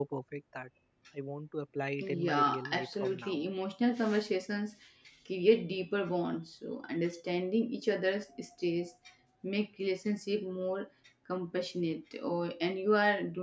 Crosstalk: present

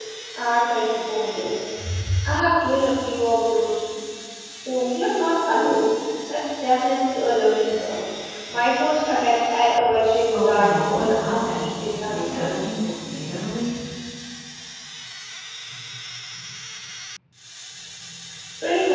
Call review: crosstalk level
present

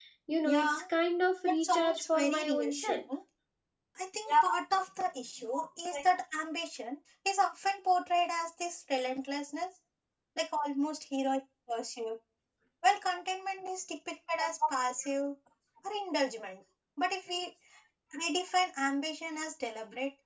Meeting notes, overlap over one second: present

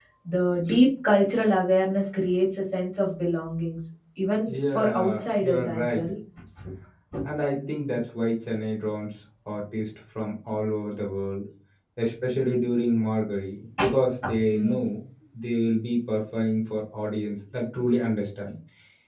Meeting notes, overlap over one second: present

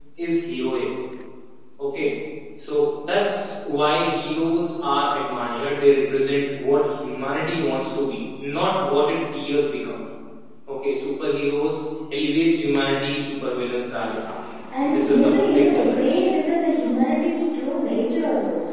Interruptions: present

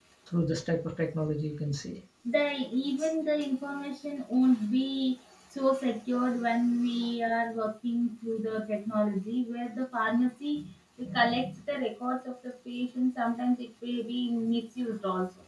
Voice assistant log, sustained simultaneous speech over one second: none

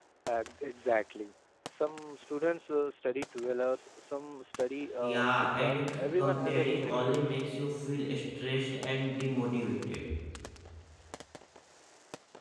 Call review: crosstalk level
present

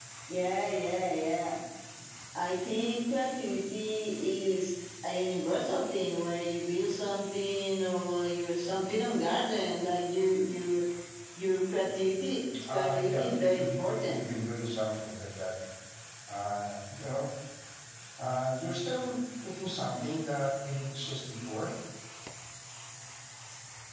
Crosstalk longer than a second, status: present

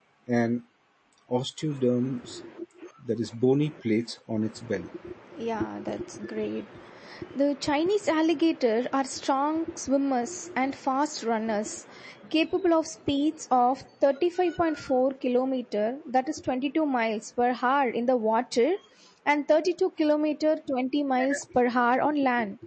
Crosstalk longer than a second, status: none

